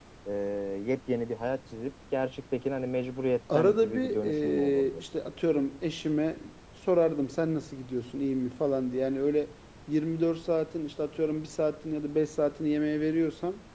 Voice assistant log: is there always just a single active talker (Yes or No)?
No